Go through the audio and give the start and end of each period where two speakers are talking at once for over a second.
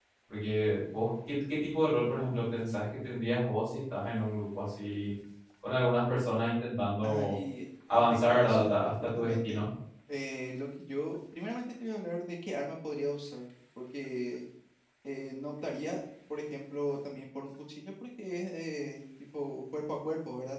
7.9-9.6

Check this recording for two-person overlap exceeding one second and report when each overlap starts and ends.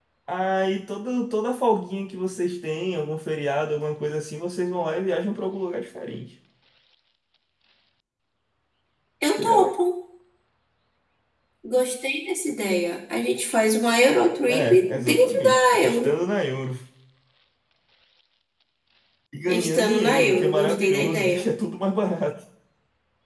14.5-16.1, 19.5-21.5

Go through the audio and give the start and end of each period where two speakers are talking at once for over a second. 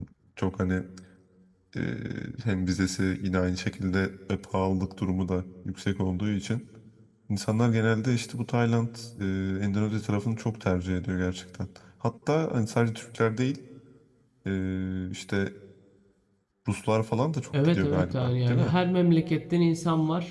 17.5-18.7

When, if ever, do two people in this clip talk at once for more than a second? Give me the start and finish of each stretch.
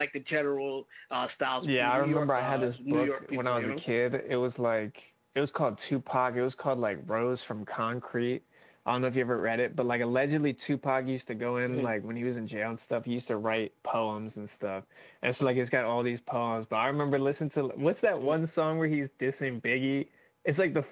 1.6-3.8

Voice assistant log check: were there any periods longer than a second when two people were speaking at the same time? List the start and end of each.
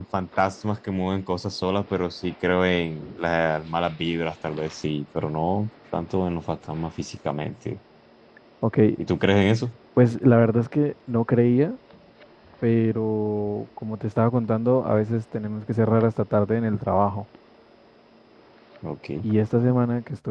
none

